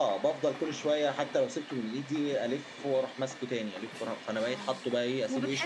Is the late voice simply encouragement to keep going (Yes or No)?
No